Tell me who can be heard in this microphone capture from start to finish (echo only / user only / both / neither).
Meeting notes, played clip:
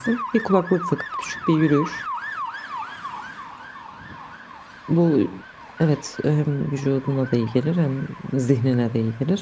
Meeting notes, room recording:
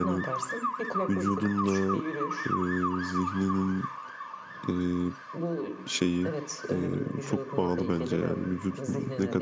both